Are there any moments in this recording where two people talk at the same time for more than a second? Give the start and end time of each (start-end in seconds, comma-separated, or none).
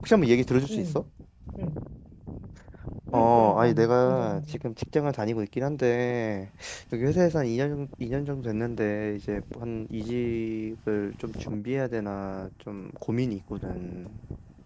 3.1-4.4